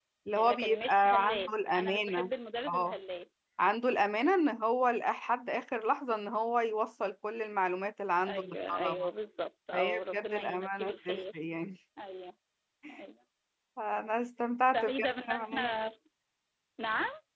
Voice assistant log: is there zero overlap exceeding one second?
No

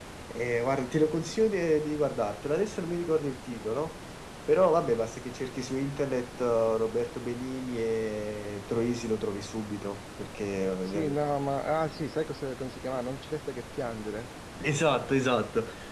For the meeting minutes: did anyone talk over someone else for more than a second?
No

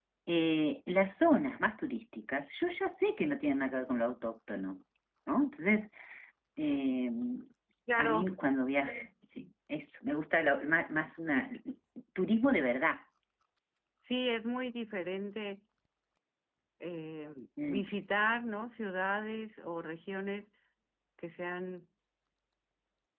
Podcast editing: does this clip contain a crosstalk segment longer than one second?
No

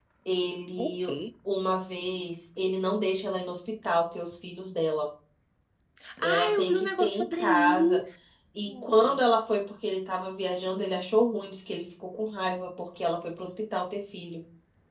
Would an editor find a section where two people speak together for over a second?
Yes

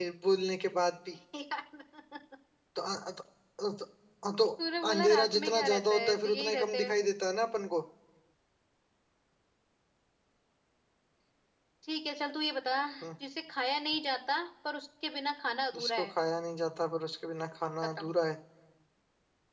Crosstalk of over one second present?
Yes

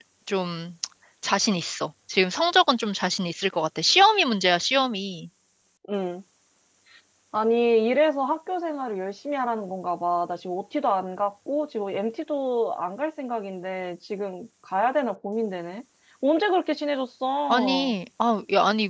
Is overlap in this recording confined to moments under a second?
Yes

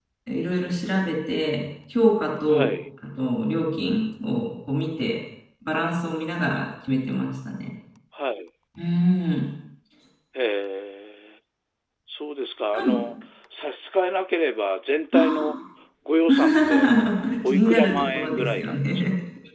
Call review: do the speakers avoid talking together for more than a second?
No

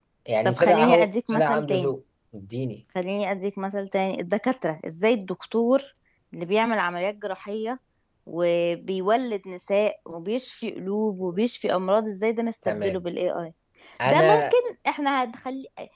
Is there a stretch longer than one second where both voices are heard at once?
Yes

